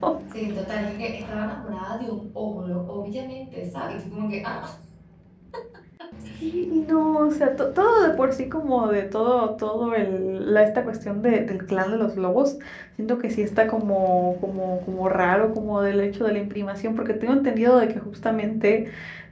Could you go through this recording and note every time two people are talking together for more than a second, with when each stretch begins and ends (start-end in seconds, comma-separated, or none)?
none